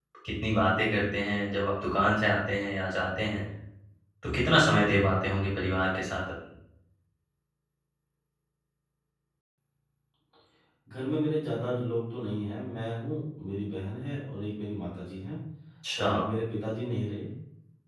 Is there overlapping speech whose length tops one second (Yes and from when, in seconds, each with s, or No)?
No